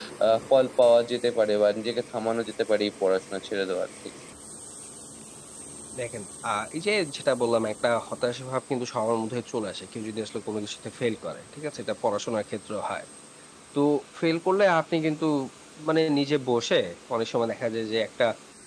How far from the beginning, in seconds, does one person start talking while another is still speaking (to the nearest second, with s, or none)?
none